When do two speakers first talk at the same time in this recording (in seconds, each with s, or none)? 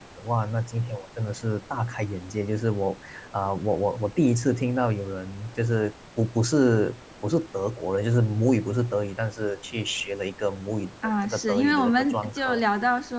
11.0 s